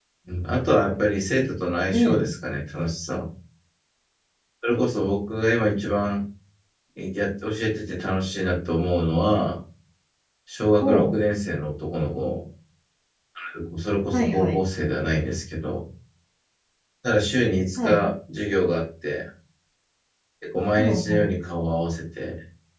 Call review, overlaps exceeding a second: none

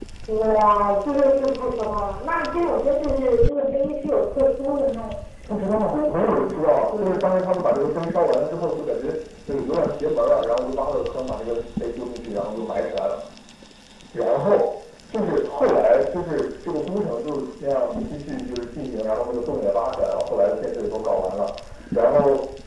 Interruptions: present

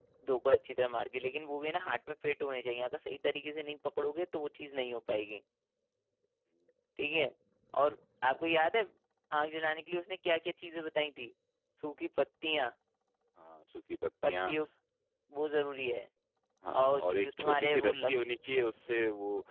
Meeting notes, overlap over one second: present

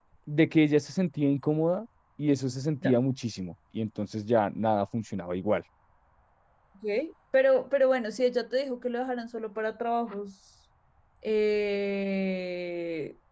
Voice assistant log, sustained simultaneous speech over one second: none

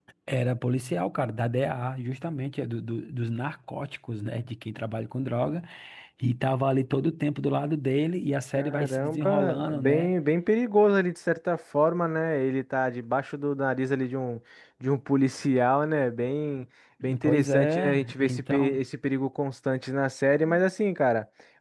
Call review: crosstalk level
present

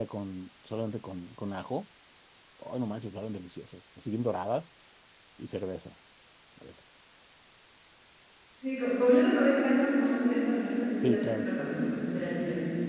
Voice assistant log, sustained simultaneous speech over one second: none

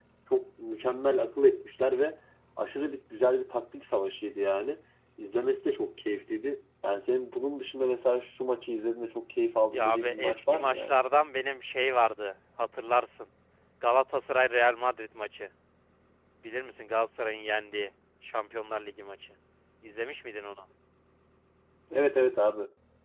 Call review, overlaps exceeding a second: present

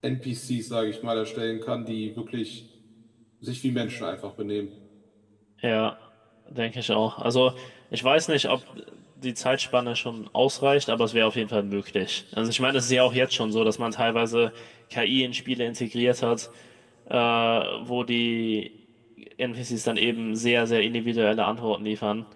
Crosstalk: none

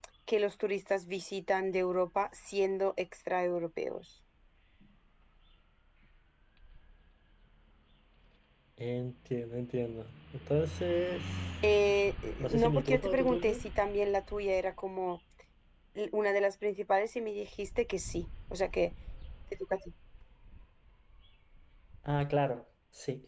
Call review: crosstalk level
present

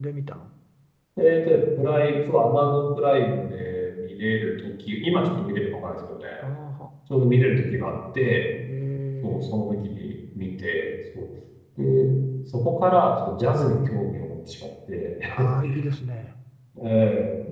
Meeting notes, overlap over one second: none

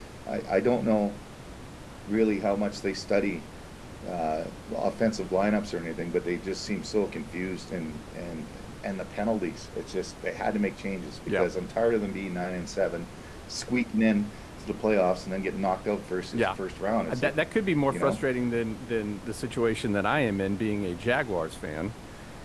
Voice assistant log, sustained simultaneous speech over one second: none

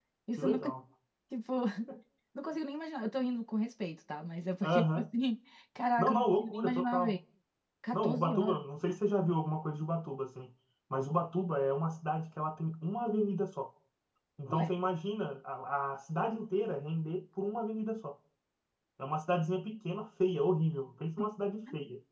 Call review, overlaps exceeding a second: present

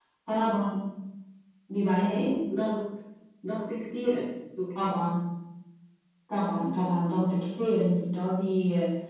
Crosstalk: none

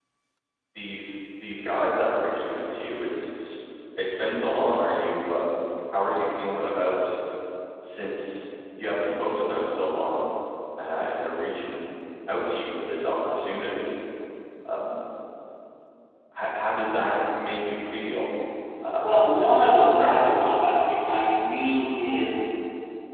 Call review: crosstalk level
present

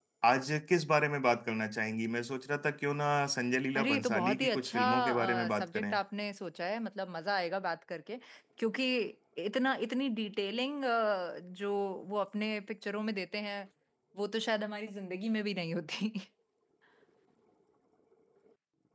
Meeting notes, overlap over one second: present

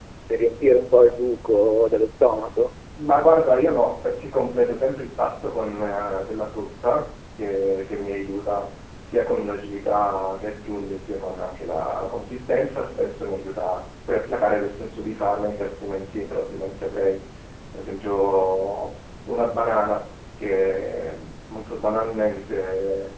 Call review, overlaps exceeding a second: none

